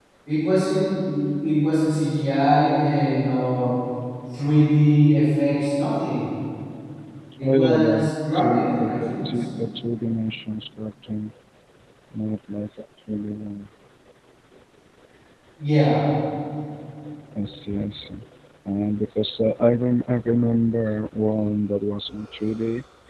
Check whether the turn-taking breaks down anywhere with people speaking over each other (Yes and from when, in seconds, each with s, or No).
Yes, from 7.4 s